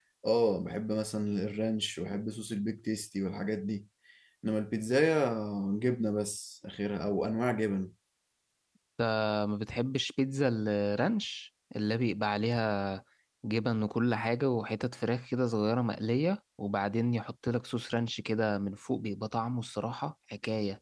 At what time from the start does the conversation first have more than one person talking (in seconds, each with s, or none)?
none